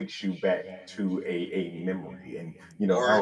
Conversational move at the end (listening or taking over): listening